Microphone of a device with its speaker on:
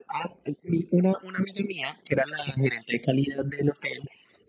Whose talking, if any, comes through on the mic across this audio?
echo only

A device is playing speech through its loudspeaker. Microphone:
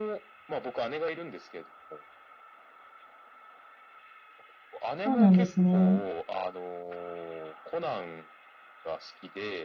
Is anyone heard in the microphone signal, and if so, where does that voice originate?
both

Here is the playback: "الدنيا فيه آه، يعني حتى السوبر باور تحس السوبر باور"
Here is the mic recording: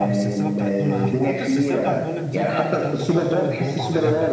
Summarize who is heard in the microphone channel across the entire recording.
both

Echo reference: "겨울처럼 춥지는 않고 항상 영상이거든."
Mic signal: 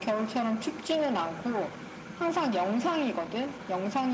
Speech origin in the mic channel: echo only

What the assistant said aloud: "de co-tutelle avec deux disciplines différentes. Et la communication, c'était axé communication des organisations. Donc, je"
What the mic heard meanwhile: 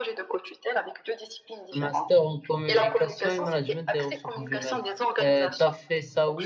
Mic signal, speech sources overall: both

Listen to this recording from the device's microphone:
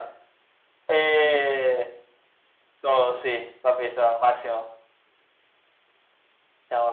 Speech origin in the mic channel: echo only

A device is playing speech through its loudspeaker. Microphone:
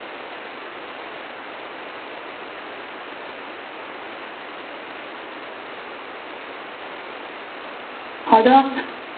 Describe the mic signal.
user only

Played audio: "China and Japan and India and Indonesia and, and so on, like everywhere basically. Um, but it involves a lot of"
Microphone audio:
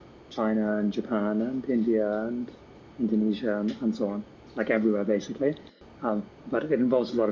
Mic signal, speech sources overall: echo only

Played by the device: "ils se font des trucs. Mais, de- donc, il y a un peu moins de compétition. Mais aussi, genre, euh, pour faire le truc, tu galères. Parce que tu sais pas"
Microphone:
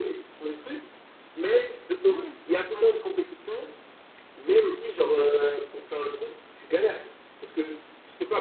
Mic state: both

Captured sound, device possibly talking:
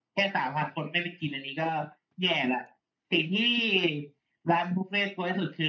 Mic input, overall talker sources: echo only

